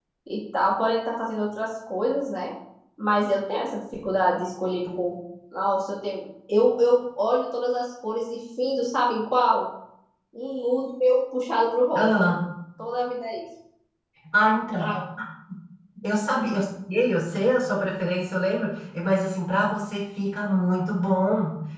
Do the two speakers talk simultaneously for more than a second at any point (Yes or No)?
No